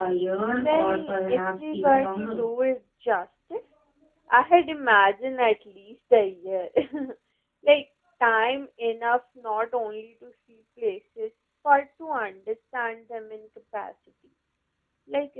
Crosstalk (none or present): present